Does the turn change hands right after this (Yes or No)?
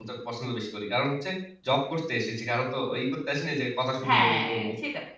Yes